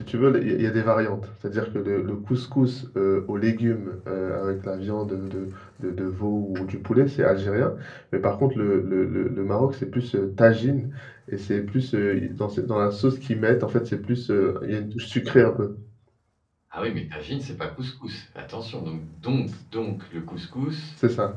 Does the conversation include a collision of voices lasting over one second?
No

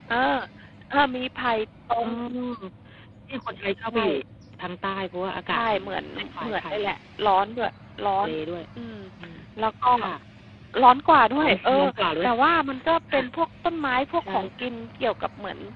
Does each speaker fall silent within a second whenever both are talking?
No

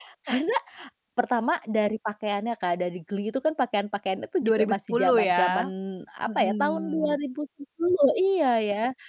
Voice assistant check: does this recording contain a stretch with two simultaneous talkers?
Yes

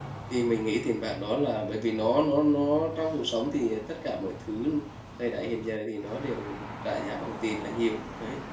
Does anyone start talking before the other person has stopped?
No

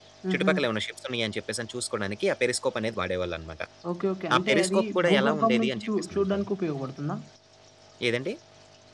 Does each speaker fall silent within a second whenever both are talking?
No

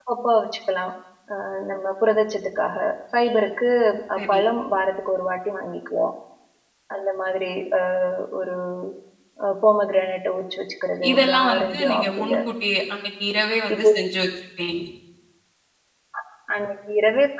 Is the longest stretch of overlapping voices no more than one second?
No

